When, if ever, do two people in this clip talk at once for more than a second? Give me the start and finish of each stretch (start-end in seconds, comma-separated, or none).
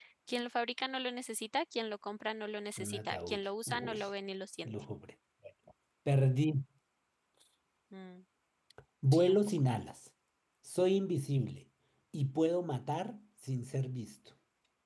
2.8-4.0